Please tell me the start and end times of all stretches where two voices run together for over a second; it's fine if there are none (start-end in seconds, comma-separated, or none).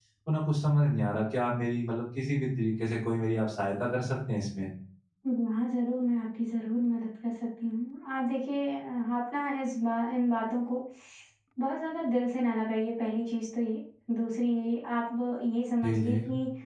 none